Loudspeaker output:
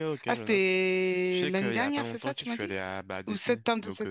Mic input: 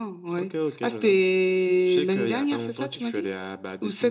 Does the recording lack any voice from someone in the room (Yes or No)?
Yes